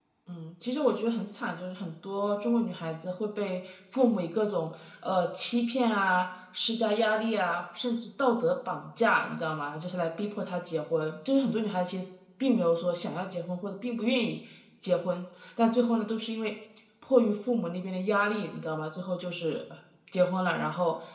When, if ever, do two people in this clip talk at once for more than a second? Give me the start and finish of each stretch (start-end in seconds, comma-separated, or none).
none